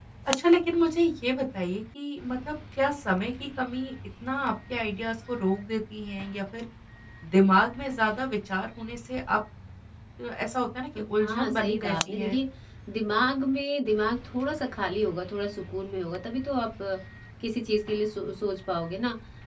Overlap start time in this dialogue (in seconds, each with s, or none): 11.0 s